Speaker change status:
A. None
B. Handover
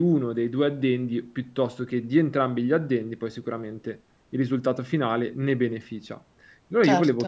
A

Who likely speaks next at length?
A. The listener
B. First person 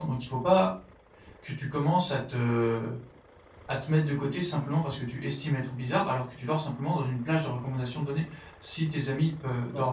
B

